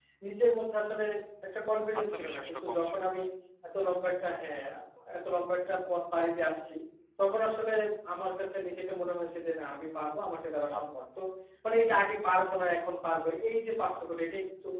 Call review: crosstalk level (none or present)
present